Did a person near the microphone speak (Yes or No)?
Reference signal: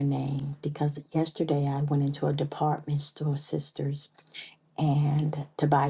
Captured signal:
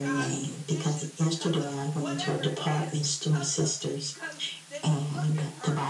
Yes